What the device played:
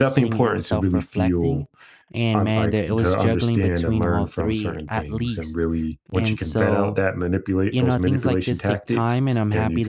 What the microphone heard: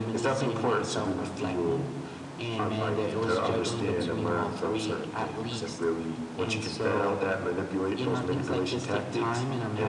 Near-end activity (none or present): none